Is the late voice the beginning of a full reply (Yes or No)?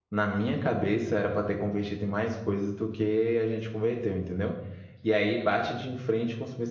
No